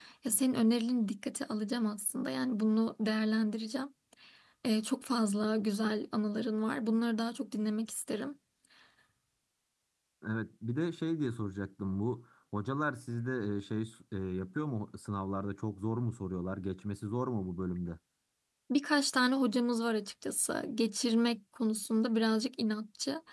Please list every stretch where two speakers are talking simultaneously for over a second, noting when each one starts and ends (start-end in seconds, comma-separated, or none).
none